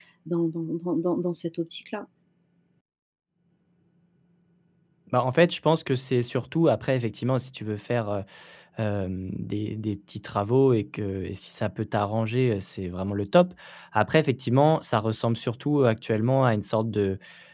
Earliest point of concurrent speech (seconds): none

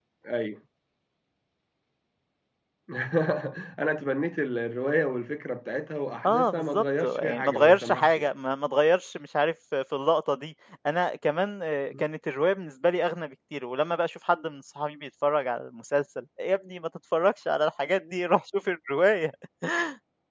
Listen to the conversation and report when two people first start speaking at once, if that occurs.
6.2 s

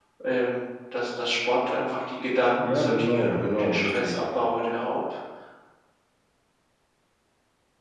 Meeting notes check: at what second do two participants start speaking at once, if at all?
2.6 s

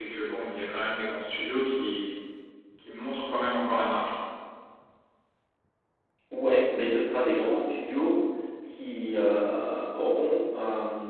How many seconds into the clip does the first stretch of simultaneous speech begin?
none

